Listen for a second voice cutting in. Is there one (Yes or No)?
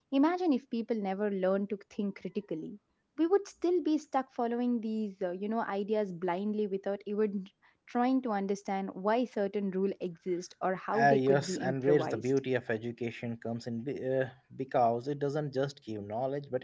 Yes